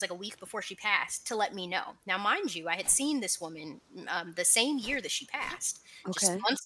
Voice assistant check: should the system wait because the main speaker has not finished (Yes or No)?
Yes